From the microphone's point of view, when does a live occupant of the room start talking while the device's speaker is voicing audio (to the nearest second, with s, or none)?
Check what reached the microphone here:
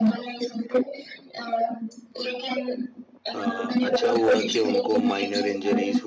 3 s